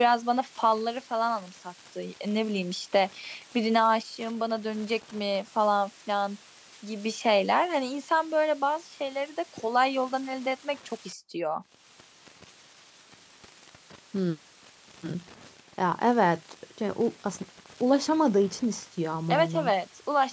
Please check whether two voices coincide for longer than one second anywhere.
No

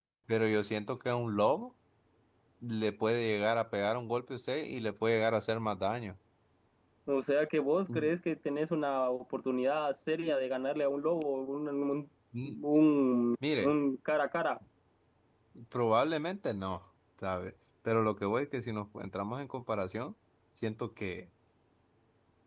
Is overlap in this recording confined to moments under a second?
Yes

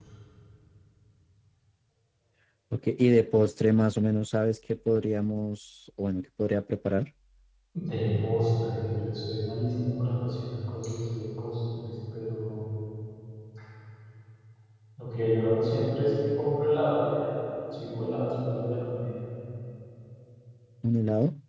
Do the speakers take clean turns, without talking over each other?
Yes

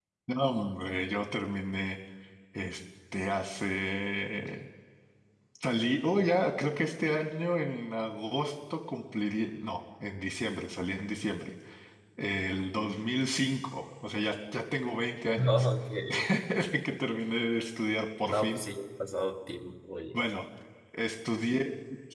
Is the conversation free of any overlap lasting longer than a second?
Yes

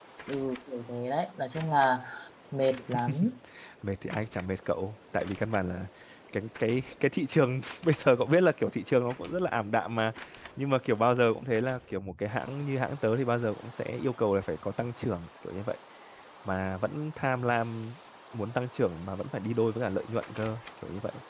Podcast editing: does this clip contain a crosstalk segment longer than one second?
No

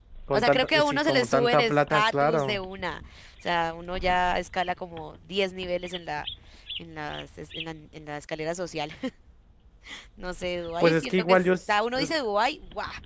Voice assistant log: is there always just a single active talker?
No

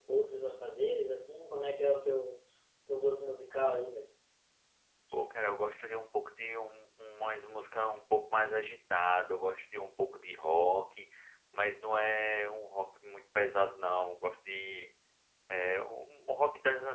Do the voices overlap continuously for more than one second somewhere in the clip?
No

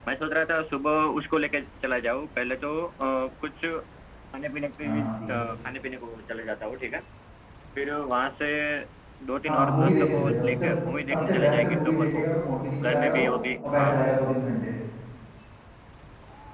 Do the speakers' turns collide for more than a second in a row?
Yes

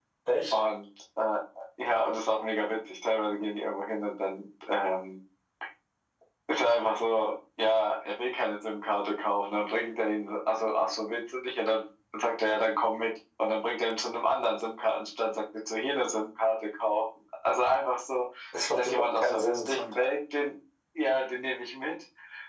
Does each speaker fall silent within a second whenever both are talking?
No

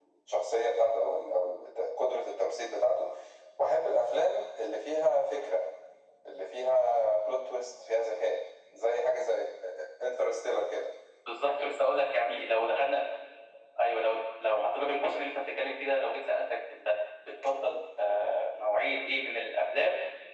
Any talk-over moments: No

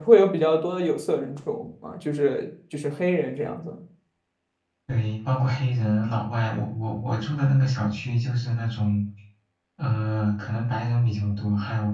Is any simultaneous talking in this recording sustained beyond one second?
No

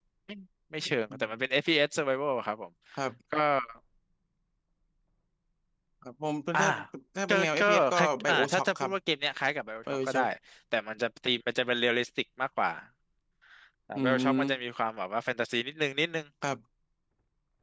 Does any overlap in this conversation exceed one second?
Yes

